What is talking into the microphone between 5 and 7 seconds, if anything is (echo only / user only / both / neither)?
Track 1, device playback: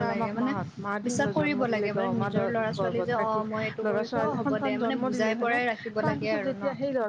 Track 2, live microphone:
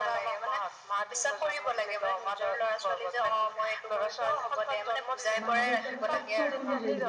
both